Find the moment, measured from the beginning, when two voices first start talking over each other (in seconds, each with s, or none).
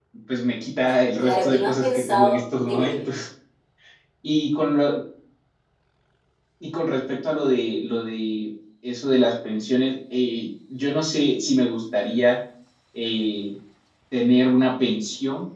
1.2 s